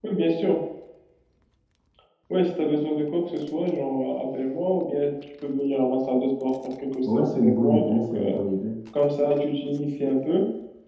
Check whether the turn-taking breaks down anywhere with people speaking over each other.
Yes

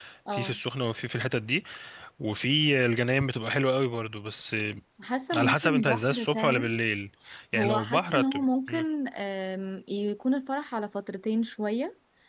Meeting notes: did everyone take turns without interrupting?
No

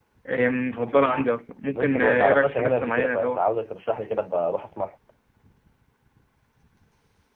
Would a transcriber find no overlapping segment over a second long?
No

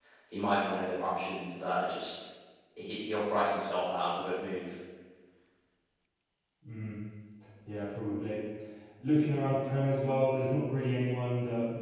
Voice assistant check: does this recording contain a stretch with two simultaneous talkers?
No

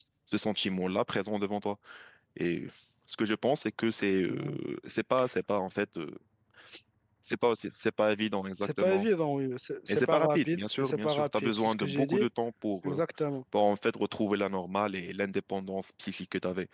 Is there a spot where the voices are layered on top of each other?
Yes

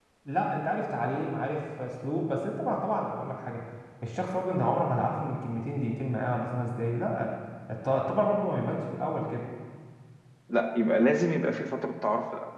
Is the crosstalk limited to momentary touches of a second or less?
Yes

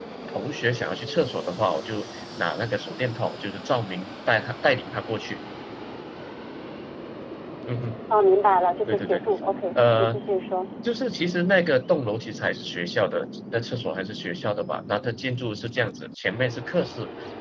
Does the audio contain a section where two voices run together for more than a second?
No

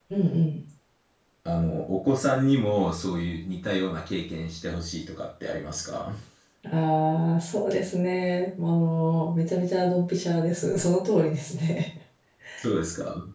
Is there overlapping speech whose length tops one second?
No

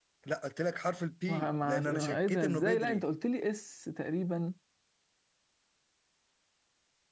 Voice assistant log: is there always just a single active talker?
No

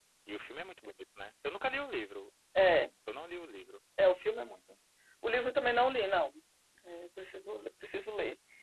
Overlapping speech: No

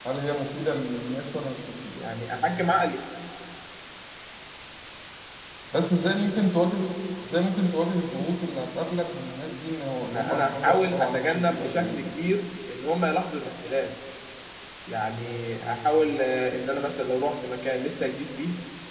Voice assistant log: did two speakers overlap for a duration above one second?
Yes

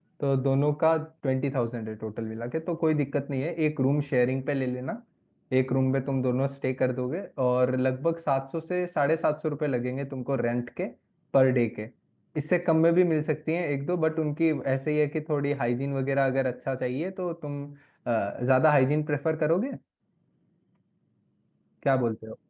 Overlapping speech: No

